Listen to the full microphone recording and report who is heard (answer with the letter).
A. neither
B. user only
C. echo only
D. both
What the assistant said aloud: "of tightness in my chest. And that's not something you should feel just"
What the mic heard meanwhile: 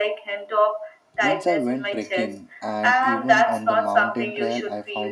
D